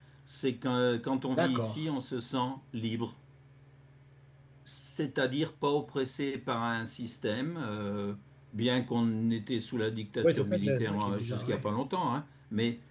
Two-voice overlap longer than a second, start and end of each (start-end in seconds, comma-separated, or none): 10.2-11.6